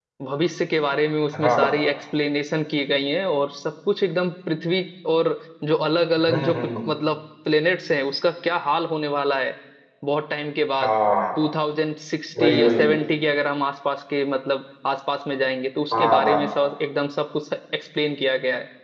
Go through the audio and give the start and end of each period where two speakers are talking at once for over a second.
none

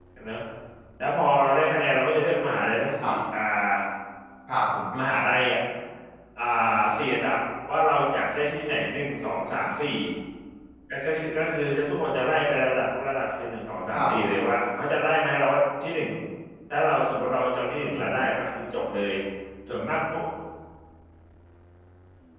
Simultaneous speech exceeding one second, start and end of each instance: none

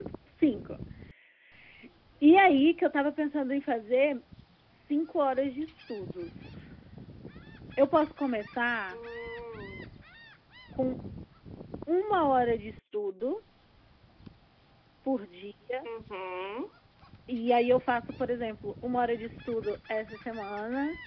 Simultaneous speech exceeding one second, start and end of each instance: none

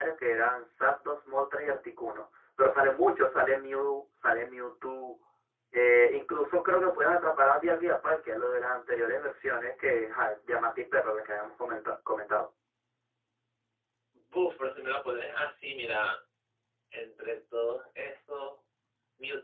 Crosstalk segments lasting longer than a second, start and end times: none

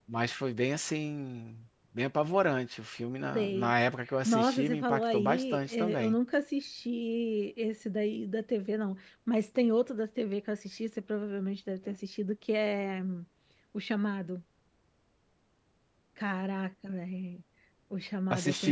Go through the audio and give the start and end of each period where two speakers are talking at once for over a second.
4.2-6.2

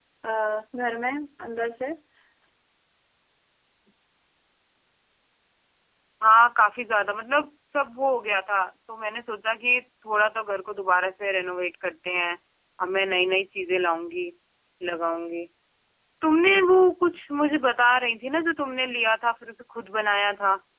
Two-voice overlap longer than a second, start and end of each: none

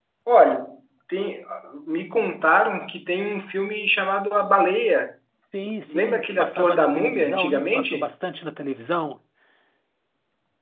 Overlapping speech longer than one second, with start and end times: 5.9-8.1

